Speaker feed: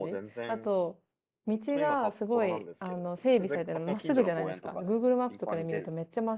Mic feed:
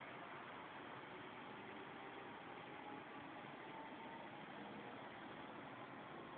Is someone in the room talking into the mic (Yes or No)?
No